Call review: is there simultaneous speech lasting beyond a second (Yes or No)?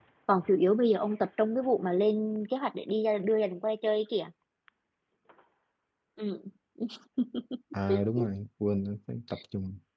No